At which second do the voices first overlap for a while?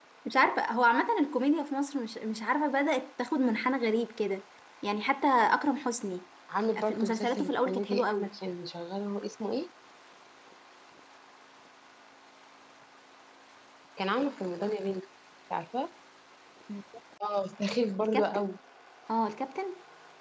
7 s

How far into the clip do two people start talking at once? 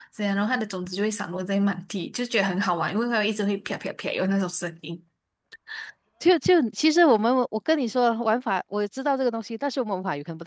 none

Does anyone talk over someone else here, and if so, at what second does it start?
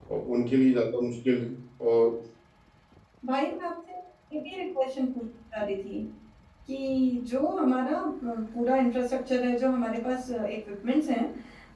none

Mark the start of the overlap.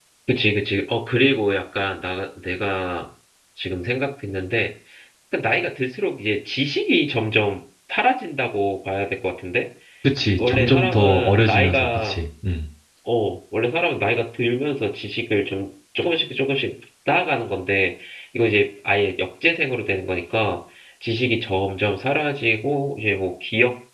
10 s

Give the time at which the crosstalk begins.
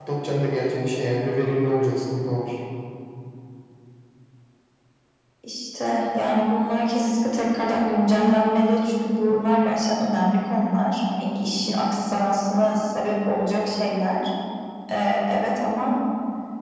none

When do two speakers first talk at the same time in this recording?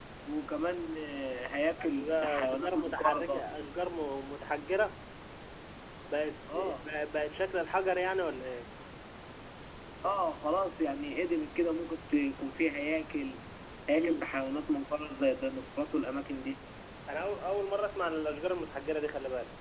2 s

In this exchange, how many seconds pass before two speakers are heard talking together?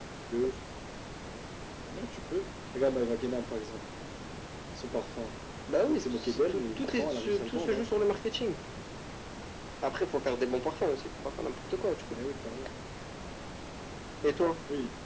6 s

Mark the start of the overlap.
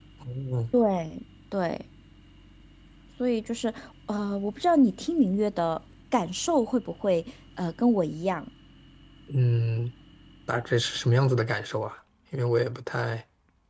none

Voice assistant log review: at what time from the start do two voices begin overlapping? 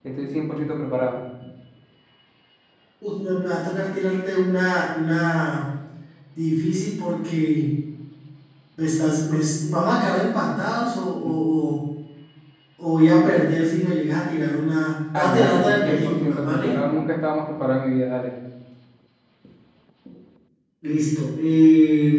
15 s

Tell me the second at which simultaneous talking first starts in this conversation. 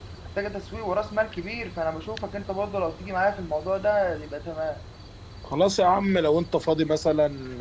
none

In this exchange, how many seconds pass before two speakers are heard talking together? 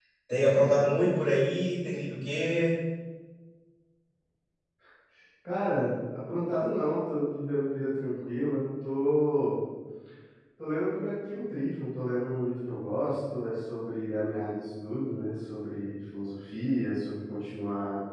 none

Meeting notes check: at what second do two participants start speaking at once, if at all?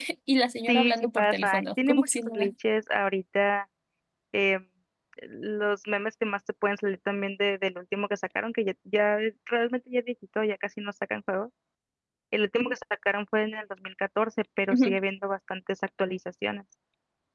1 s

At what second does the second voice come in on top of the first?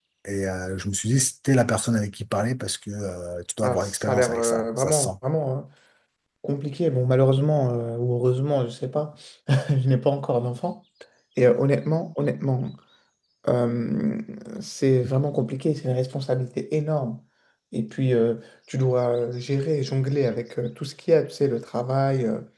4 s

